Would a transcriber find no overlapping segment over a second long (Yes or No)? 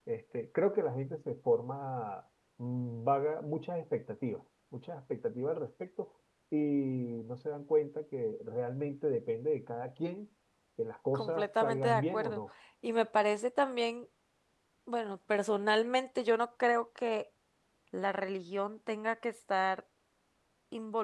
No